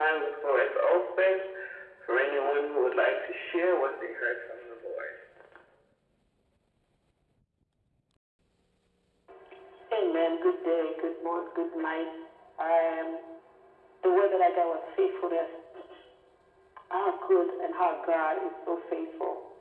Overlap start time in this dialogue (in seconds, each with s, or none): none